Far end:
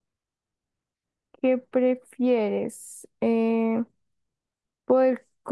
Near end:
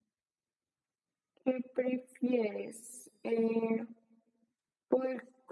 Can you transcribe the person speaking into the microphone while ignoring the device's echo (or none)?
none